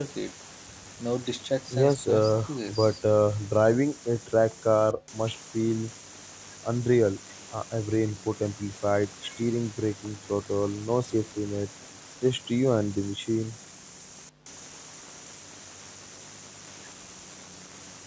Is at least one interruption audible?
Yes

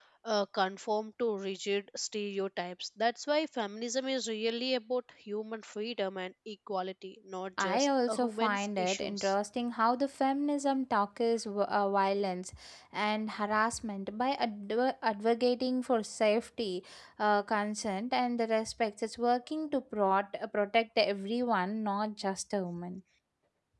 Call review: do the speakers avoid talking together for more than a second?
No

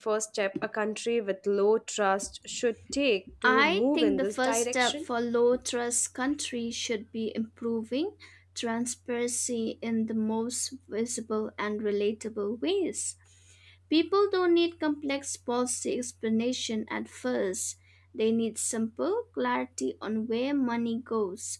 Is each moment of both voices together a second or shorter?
No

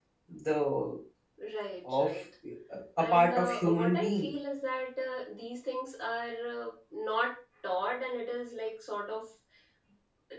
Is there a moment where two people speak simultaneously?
Yes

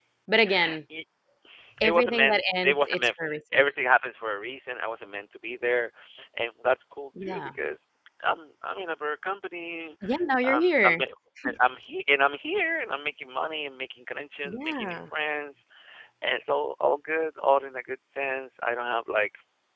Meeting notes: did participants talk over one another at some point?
Yes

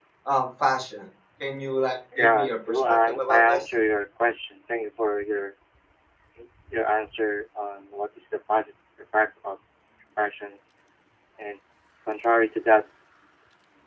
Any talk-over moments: Yes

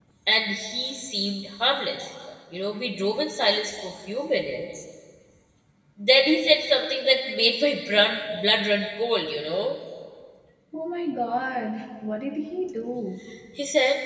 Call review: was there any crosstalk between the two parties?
No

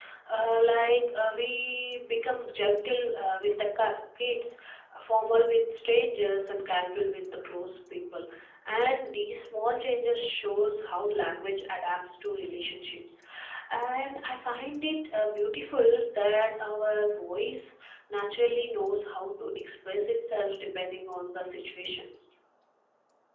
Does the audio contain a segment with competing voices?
No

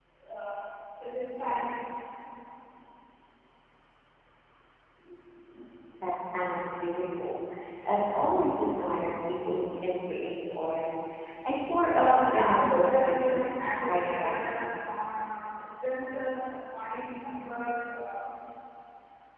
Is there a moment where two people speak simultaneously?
Yes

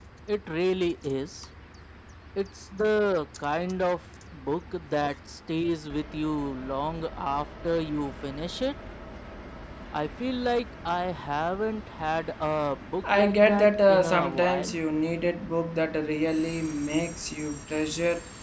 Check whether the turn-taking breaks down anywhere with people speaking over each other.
Yes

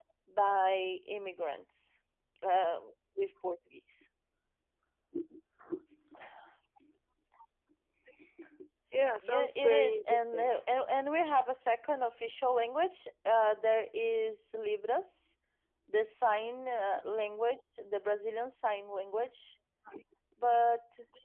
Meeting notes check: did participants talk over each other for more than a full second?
Yes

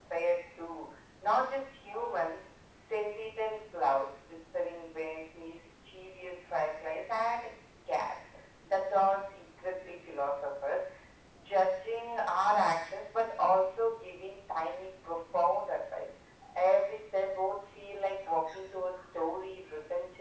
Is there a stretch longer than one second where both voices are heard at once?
No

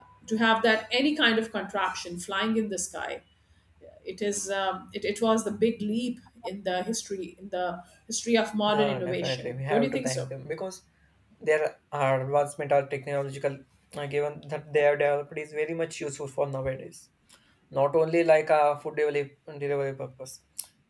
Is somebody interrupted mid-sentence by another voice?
Yes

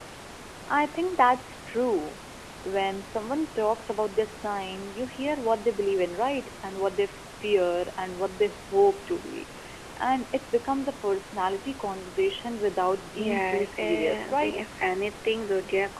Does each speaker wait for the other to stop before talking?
No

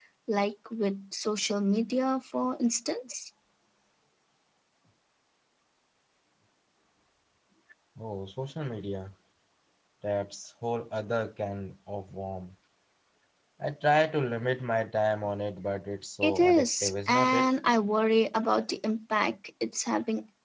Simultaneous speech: Yes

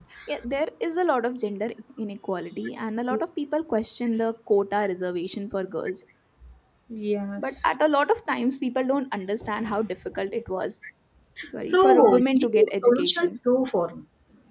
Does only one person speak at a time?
No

